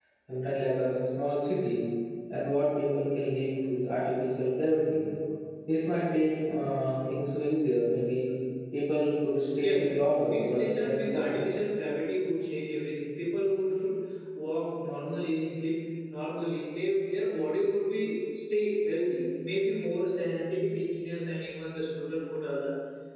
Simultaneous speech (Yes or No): Yes